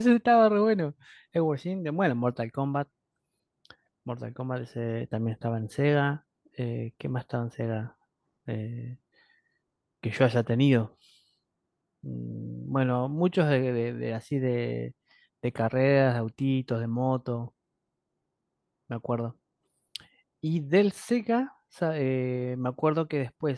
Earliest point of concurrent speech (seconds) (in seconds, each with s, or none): none